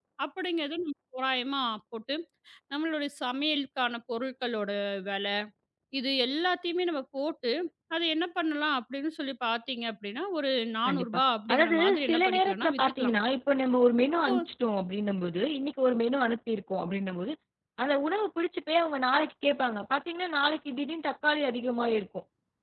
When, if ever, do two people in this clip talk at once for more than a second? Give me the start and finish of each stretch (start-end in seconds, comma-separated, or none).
11.5-13.1